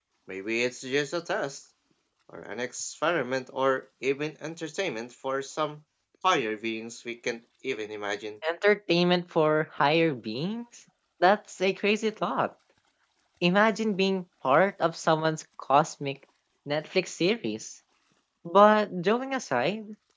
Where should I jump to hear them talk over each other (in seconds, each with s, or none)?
none